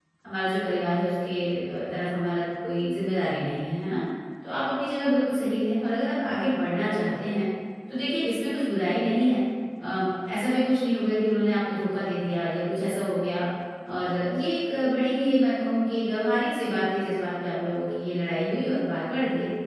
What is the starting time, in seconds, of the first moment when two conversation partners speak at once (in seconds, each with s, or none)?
none